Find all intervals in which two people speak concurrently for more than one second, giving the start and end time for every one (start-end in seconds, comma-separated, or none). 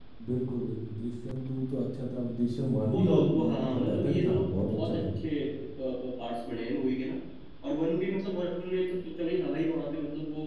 2.9-5.0